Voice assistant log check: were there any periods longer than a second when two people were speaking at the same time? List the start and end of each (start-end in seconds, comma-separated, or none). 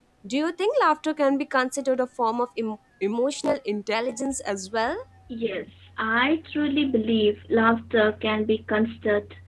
none